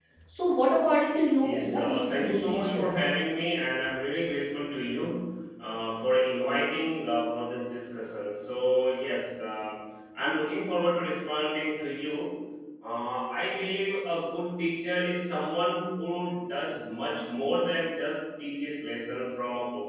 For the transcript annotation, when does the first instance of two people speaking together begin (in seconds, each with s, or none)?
1.4 s